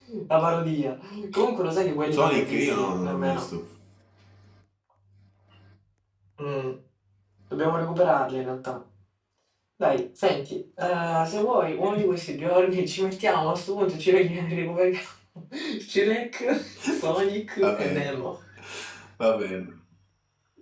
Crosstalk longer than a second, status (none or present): present